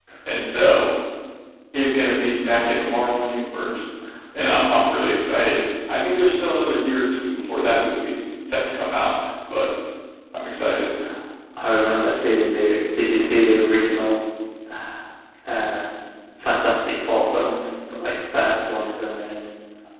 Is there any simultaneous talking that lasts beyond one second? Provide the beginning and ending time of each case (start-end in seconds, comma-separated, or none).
none